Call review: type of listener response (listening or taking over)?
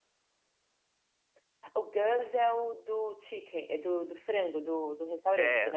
taking over